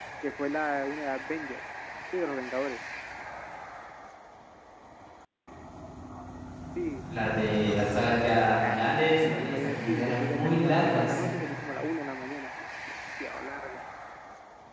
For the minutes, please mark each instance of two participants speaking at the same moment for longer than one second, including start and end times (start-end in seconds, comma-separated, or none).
8.7-11.2